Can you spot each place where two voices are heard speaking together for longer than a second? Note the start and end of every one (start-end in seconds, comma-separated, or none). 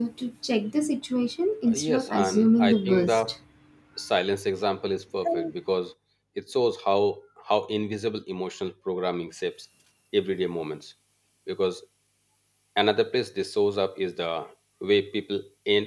1.7-3.3